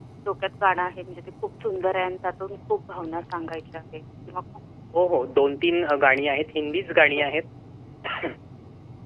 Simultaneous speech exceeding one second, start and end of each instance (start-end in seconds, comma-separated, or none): none